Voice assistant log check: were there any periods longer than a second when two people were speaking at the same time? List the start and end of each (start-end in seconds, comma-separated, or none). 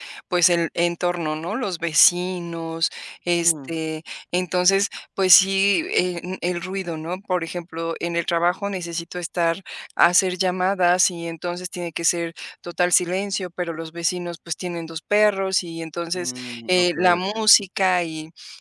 16.2-17.4